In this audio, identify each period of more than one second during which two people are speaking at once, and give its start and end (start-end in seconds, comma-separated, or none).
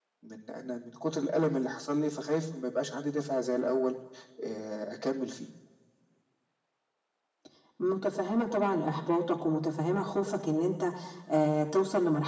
none